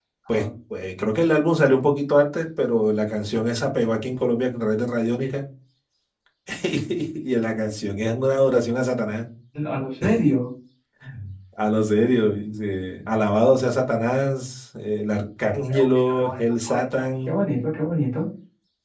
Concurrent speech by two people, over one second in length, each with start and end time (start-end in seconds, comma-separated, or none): 15.6-17.4